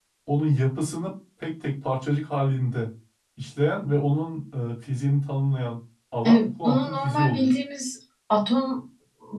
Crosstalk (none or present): present